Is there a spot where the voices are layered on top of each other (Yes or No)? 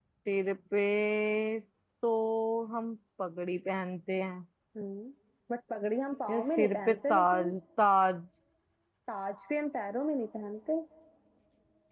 Yes